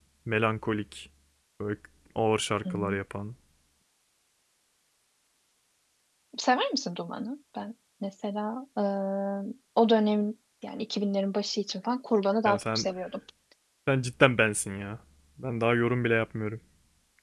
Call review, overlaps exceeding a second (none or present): none